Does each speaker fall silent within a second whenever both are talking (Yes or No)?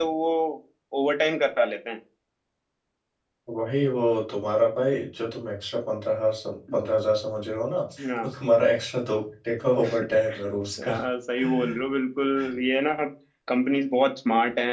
Yes